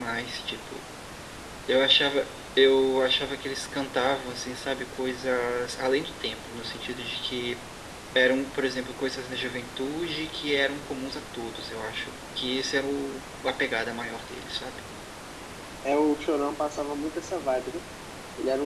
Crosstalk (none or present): none